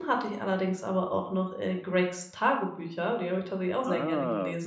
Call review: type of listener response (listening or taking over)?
taking over